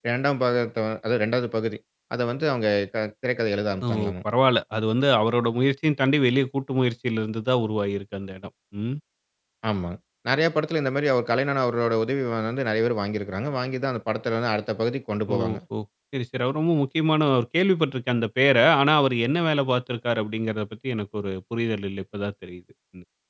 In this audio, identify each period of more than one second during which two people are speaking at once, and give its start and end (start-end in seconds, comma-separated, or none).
none